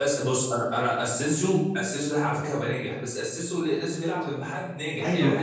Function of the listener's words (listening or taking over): taking over